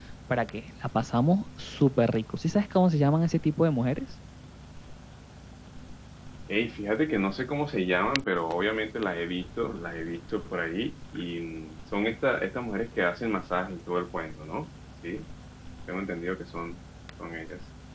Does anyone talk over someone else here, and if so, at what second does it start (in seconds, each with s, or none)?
none